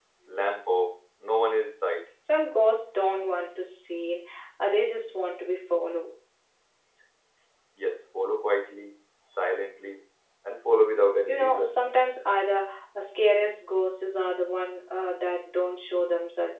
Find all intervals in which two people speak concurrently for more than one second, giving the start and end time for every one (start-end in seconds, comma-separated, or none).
none